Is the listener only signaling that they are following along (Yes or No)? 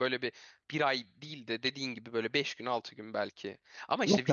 No